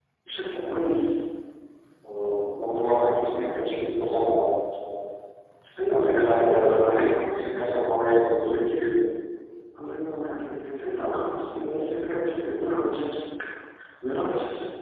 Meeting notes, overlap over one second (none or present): present